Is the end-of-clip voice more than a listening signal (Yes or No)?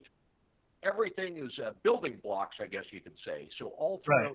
Yes